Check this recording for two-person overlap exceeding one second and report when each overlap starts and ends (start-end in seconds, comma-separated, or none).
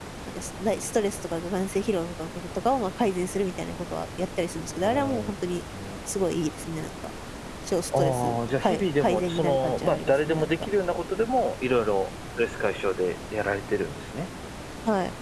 8.0-10.5